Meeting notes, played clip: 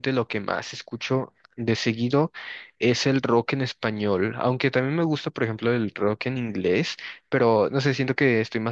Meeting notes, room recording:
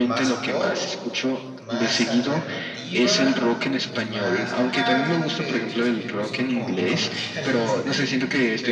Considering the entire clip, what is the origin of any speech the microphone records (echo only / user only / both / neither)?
both